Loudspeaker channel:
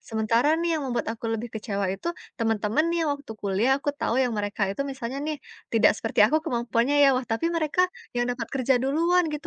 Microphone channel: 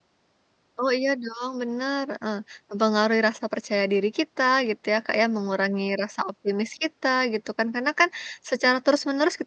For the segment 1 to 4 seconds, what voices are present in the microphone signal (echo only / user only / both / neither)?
user only